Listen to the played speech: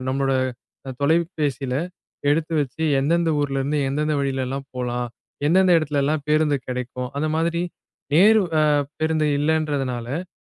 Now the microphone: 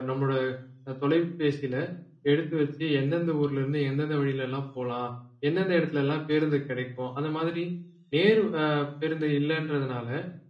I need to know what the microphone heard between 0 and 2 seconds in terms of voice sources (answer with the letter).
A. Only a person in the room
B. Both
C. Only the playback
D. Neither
C